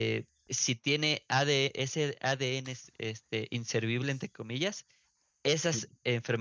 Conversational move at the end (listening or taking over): listening